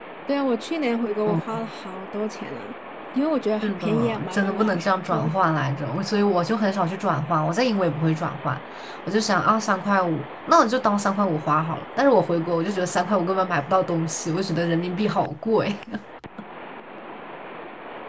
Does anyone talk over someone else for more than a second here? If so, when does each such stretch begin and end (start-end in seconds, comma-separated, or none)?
3.6-5.3